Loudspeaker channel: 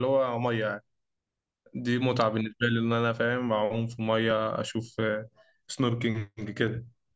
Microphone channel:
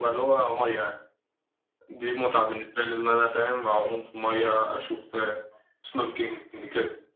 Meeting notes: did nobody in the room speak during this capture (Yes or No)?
Yes